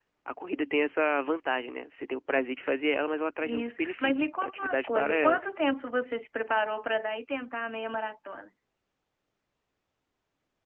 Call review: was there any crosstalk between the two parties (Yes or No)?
Yes